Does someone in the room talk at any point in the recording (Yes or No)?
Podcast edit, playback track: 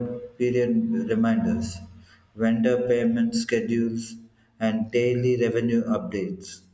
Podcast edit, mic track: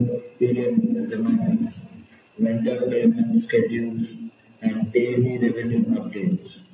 No